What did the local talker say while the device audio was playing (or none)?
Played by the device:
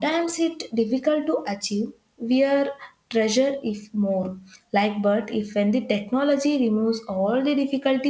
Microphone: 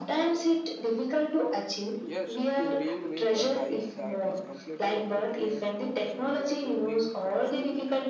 Yes, to being with a life that is completely effortless would seem like a dream comes true.